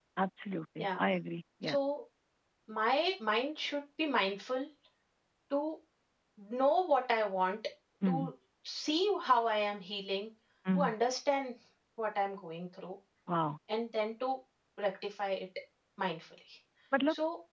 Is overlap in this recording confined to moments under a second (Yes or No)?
Yes